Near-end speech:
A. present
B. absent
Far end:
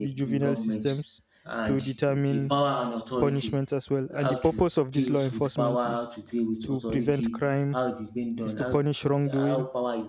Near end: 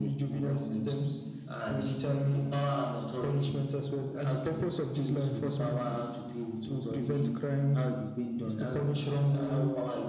B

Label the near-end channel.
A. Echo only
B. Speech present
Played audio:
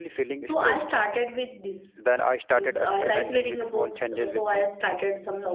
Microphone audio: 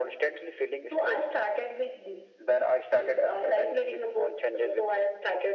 A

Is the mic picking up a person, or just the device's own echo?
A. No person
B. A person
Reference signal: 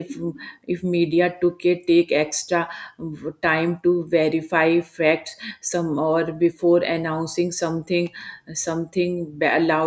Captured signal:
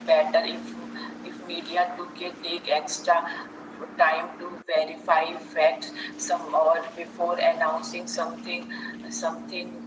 A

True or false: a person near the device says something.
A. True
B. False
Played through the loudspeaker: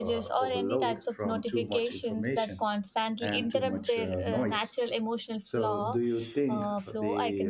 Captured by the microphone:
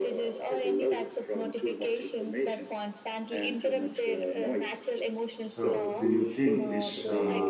A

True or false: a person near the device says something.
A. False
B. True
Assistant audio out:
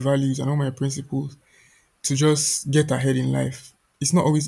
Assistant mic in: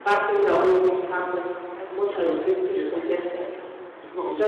B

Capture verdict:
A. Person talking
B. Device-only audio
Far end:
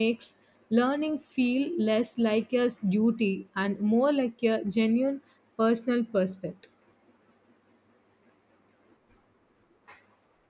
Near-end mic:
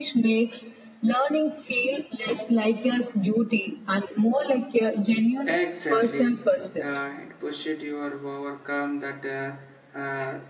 A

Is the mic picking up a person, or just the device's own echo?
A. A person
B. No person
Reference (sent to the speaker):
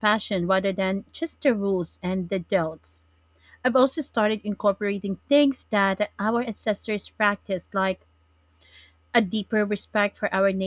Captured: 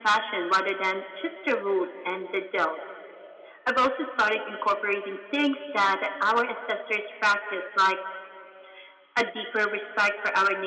B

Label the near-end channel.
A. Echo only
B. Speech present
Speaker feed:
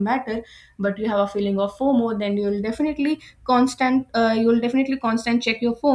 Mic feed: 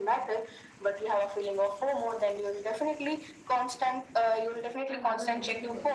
B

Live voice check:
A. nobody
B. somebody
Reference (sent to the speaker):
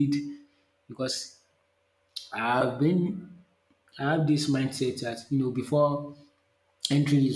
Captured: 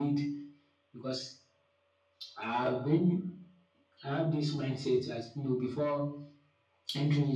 A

